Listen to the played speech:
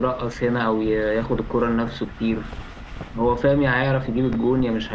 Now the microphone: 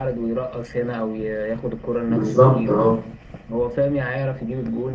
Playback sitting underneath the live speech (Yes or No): Yes